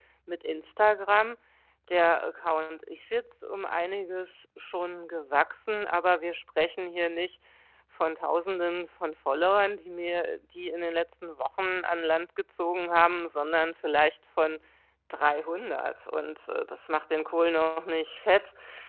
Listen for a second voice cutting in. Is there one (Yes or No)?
No